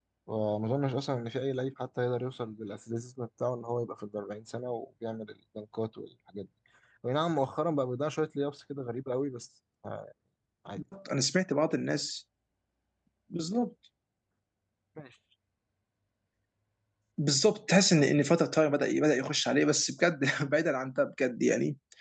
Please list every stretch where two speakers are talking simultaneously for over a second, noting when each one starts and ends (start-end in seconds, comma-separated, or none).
none